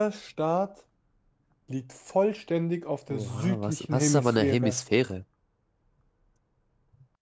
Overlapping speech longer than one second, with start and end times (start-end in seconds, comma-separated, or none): 3.1-4.8